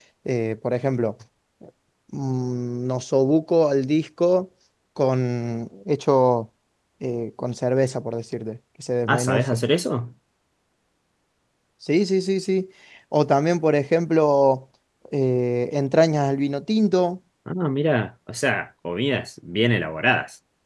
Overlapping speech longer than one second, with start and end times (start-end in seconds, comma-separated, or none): none